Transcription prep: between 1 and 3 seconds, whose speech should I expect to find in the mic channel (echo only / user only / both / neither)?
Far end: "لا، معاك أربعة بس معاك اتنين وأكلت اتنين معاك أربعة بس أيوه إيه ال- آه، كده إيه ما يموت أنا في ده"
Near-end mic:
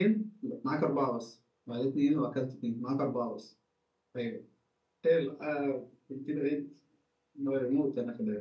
echo only